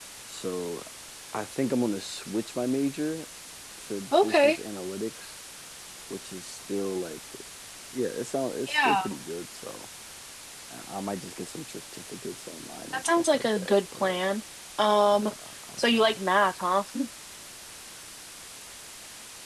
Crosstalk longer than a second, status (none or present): present